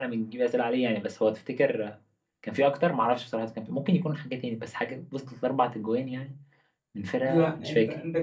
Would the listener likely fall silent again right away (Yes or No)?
No